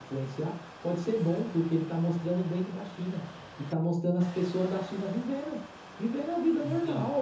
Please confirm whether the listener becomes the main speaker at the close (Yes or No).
No